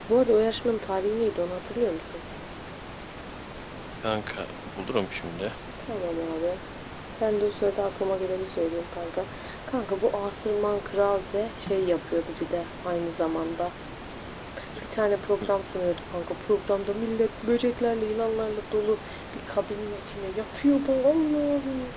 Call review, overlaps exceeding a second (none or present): none